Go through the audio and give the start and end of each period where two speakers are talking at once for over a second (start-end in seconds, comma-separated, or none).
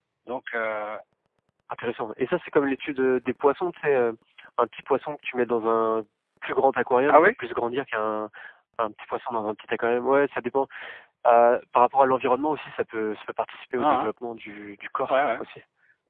none